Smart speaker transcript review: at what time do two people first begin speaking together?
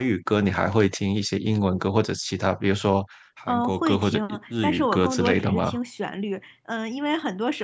3 s

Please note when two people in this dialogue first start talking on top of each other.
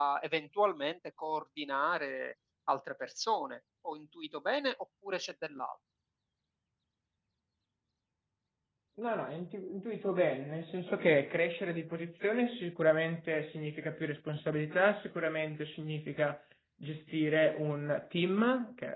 none

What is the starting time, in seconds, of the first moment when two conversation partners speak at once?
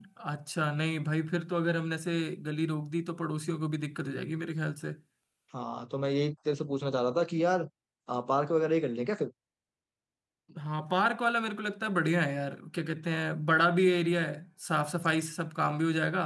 none

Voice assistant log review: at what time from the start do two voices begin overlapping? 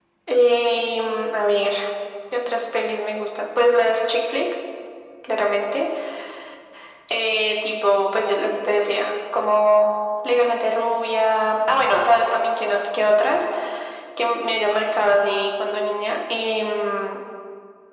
none

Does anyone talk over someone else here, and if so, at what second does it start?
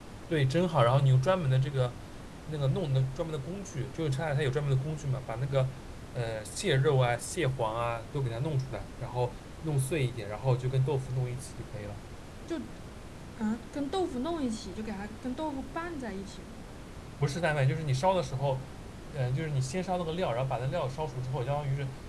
none

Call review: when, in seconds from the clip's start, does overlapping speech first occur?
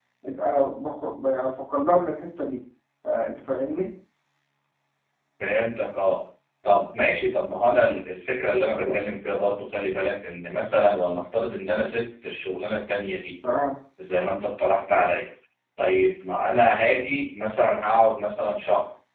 none

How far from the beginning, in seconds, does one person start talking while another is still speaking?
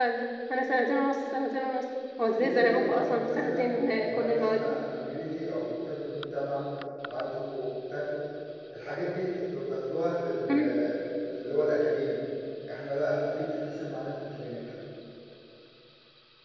2 s

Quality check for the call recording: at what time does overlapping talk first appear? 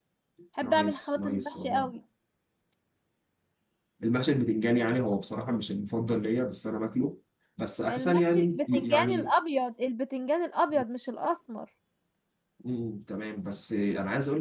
1 s

